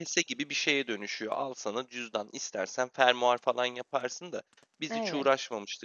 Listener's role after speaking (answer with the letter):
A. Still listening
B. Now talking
A